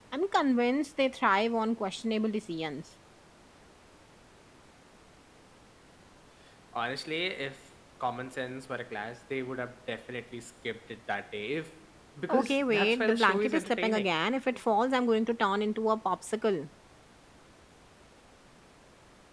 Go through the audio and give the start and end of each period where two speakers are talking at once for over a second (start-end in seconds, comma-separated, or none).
12.3-14.1